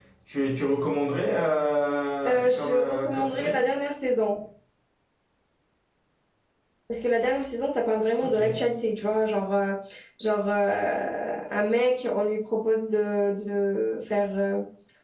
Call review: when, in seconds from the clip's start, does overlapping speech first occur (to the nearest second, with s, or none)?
2 s